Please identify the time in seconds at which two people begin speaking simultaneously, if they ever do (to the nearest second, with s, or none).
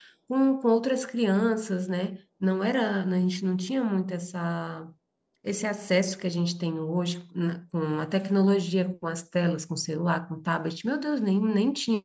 none